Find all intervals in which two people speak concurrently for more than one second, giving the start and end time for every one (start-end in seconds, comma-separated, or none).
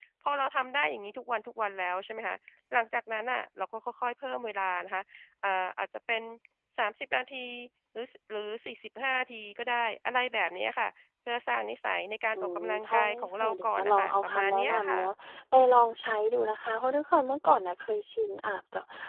12.4-15.0